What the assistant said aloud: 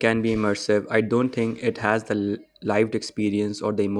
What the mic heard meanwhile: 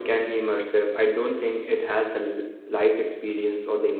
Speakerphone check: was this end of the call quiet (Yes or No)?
Yes